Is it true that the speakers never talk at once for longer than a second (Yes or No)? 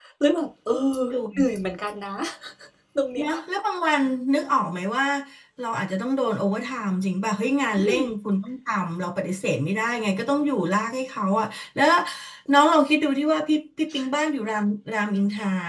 Yes